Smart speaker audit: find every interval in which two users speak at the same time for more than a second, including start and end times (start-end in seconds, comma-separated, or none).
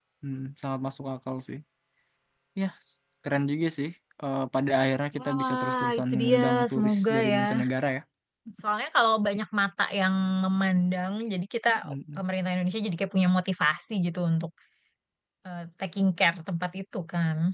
5.2-7.4